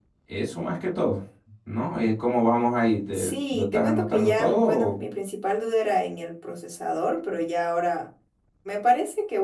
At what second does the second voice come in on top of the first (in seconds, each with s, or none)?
3.1 s